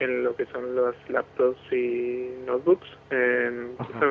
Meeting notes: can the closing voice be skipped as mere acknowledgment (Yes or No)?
Yes